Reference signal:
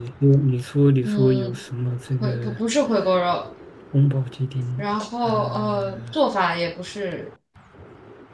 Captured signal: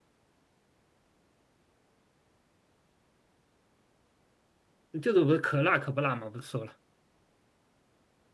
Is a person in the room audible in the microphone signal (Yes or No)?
Yes